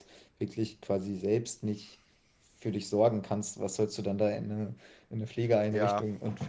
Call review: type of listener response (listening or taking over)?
taking over